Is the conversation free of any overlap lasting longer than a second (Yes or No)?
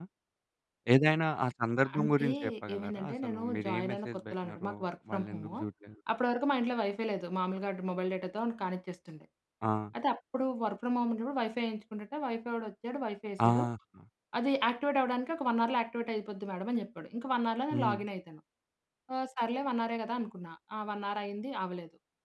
No